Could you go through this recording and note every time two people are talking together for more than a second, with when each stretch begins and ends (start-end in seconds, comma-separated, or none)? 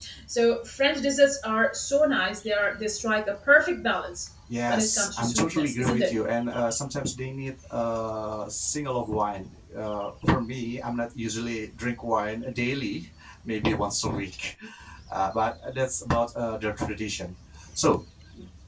4.7-6.2